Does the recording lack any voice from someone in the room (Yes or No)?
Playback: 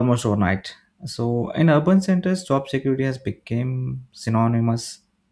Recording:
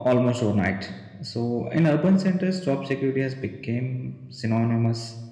Yes